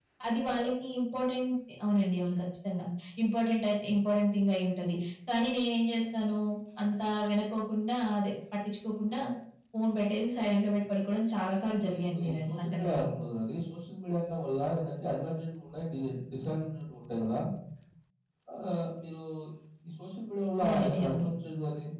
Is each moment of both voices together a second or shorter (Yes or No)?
No